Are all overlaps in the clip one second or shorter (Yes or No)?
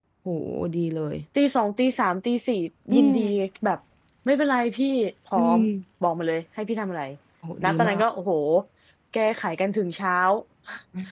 Yes